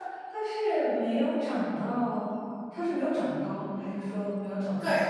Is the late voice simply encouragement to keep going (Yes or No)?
No